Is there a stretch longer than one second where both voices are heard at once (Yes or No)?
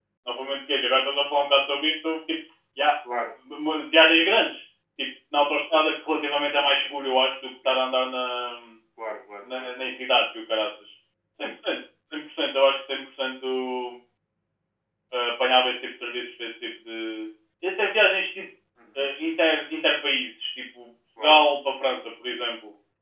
No